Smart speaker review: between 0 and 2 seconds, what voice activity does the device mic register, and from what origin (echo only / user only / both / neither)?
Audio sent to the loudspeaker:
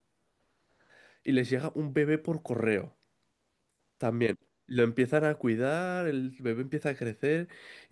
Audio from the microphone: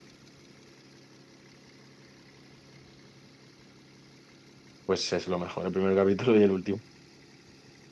neither